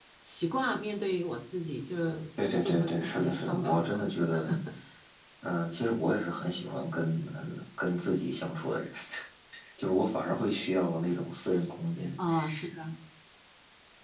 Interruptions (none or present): present